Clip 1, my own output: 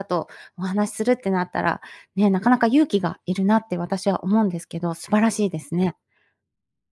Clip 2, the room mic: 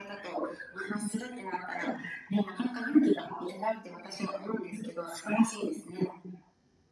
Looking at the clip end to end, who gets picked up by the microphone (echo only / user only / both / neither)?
echo only